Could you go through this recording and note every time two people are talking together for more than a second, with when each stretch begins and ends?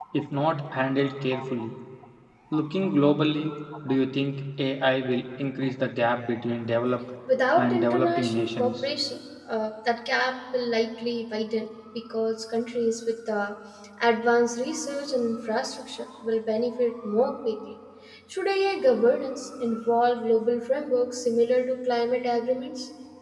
7.6-8.8

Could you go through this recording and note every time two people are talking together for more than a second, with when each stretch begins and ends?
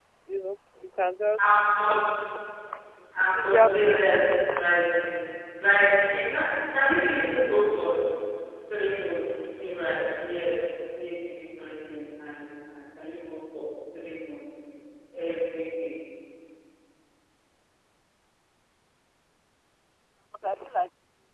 3.2-4.4

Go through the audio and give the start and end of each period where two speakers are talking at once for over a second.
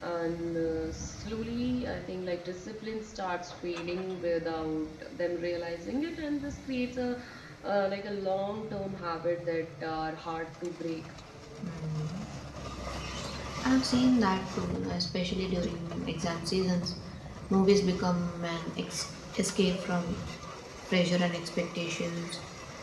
none

